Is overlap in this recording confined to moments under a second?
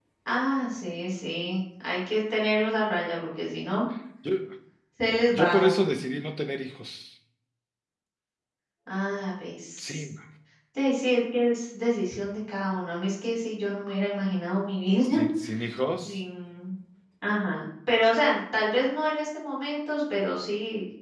Yes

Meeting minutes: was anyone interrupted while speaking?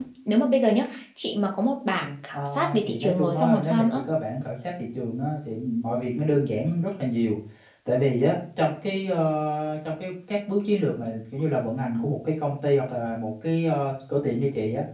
Yes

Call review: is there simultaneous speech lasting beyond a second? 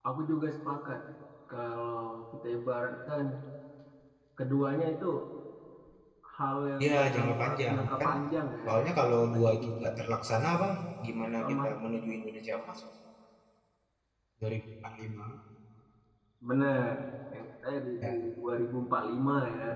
Yes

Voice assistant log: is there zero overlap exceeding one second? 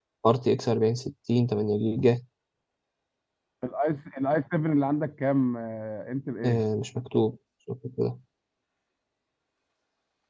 Yes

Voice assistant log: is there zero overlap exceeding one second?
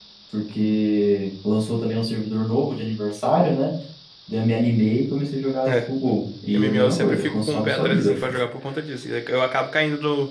No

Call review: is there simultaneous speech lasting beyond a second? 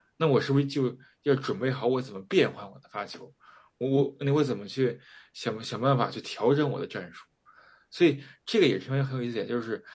No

